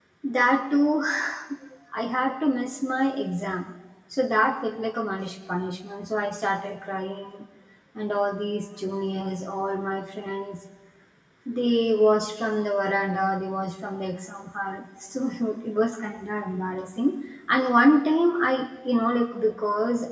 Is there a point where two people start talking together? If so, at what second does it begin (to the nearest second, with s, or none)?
none